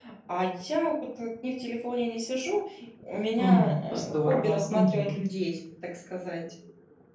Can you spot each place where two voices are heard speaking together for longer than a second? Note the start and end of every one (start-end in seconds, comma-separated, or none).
3.4-5.2